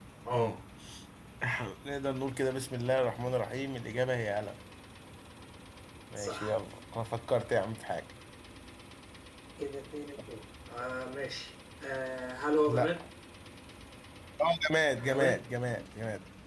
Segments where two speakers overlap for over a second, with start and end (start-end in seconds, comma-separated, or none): none